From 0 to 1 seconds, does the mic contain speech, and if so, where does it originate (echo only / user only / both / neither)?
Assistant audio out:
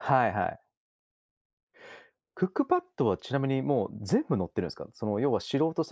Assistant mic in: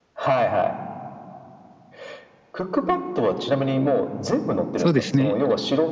echo only